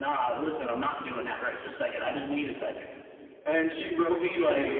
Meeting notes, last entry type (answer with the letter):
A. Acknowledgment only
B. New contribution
A